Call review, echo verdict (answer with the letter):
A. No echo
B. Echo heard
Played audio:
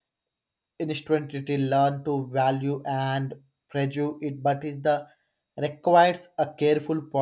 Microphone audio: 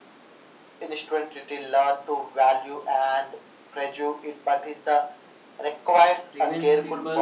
B